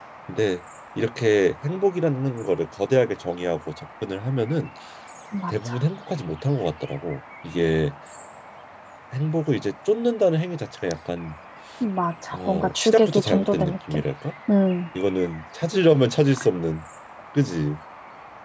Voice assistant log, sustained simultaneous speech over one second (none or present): present